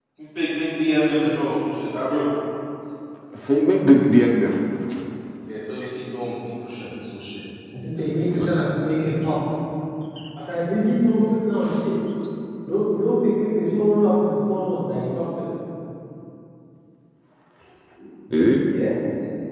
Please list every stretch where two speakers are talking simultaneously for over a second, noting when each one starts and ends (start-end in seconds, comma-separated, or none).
none